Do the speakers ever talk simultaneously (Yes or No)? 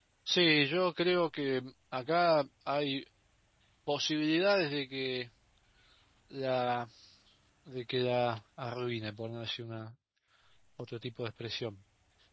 No